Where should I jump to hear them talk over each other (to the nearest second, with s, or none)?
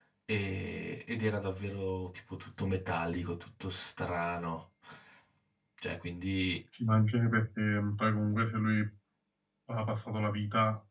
none